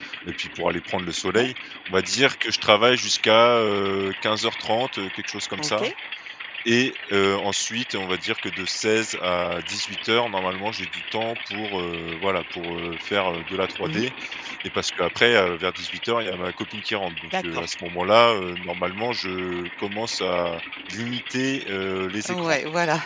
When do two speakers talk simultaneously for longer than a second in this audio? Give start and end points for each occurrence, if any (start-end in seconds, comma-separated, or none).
none